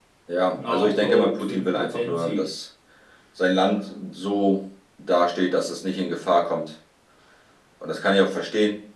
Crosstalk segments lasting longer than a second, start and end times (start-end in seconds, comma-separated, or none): 0.6-2.5